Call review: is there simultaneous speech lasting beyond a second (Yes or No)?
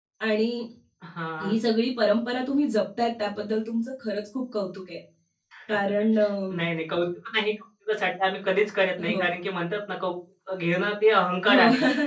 No